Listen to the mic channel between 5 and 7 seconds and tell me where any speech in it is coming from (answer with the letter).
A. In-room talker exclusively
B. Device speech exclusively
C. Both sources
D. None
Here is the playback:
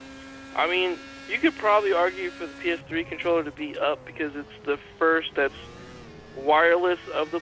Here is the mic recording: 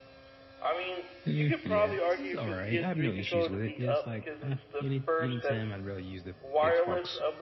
C